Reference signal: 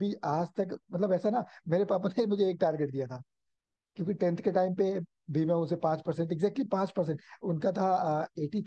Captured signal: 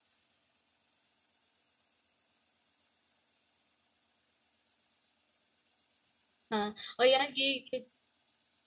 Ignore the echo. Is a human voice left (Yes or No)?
Yes